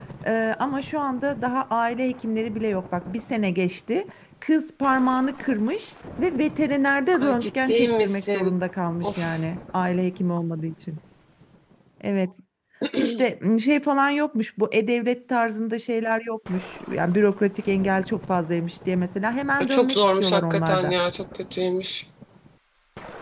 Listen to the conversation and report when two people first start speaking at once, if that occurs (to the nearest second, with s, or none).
7 s